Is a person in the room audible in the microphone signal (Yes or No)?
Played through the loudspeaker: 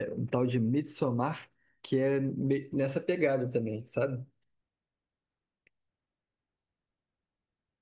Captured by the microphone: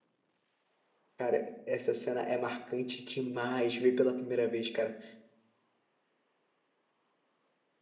Yes